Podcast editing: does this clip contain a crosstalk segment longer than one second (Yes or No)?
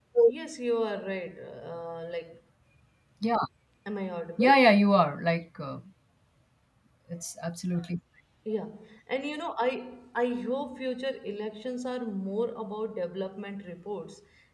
No